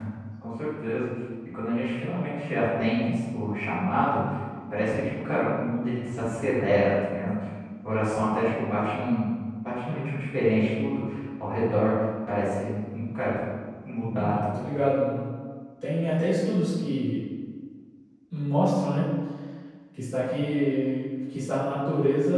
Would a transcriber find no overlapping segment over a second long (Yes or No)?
Yes